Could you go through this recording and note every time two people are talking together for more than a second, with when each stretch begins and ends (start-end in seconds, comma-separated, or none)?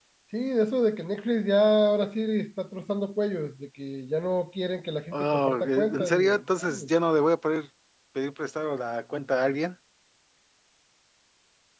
5.1-6.9